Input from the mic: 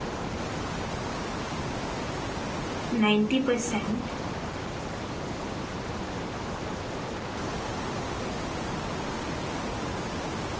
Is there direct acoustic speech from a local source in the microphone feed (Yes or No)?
Yes